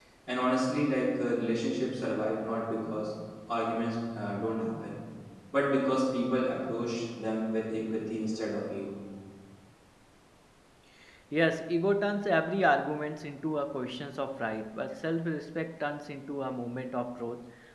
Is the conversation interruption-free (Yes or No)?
Yes